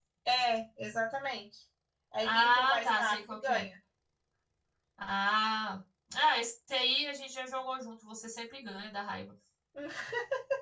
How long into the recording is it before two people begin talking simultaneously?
2.2 s

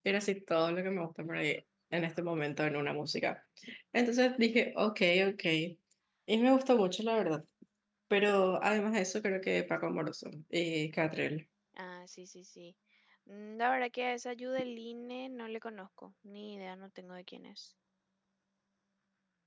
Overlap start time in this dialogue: none

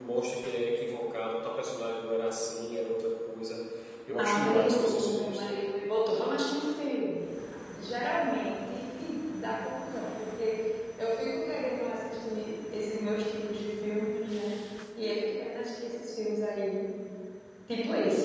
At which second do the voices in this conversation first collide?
4.2 s

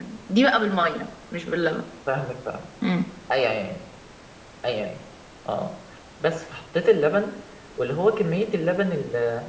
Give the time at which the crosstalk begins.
none

